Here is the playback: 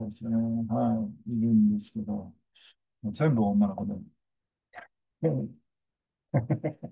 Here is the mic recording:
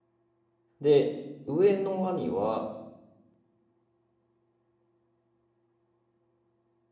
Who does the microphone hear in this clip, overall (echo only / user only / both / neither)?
user only